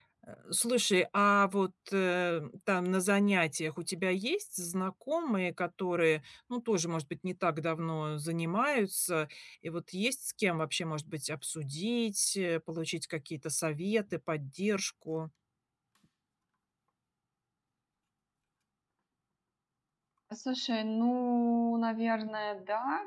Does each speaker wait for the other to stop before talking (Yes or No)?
Yes